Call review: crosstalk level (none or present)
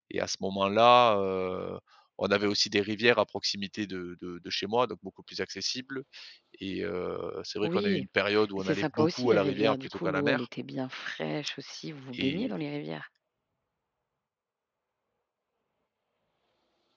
present